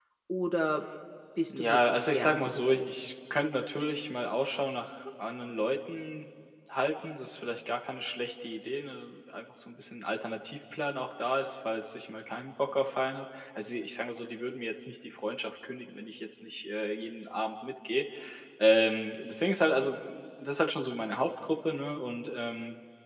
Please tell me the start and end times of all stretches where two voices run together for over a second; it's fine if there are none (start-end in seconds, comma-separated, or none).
1.5-3.1